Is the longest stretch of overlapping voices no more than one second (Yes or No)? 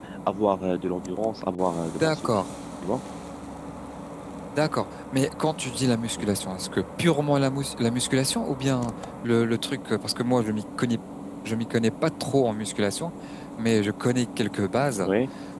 Yes